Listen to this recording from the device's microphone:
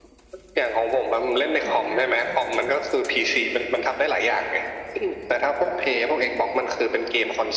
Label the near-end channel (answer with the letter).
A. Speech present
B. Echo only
A